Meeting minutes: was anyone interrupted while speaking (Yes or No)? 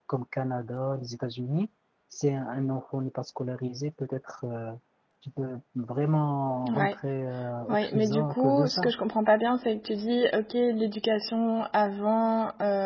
Yes